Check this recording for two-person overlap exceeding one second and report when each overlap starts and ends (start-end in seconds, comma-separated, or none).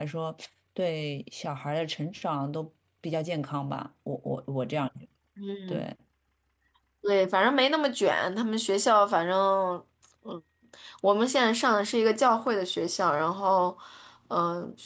none